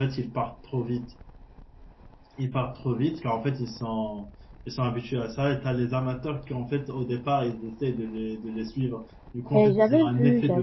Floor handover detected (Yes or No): Yes